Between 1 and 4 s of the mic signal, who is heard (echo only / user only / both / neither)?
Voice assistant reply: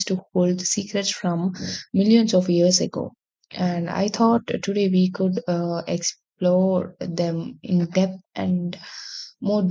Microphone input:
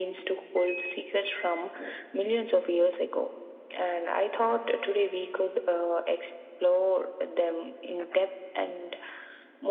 echo only